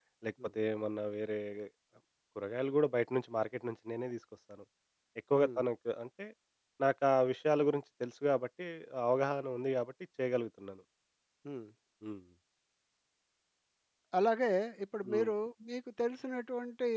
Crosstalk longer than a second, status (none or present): none